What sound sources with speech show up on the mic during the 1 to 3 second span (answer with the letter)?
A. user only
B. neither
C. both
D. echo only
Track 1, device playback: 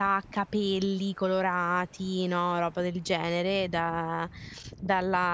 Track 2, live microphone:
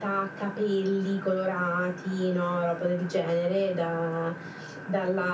D